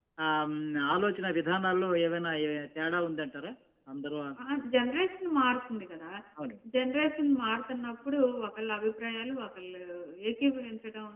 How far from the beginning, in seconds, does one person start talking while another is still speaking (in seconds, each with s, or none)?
none